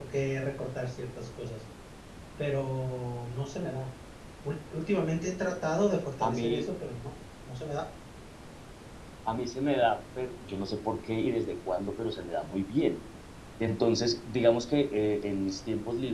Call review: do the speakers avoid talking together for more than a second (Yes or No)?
Yes